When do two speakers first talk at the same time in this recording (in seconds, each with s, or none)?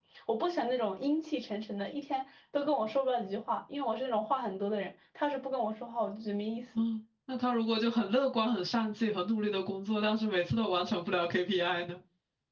none